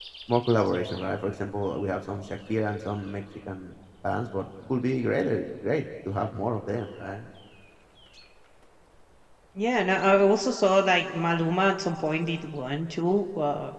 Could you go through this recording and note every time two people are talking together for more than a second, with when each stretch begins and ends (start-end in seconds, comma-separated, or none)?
none